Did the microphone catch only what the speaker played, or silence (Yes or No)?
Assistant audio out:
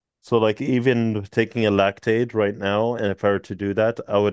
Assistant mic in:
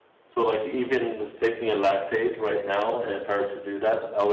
Yes